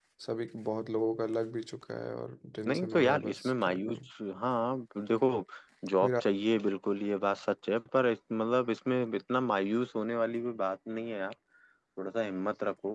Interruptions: present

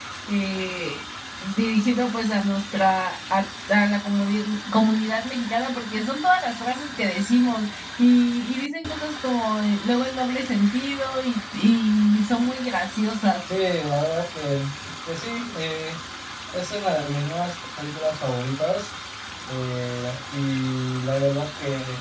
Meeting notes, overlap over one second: none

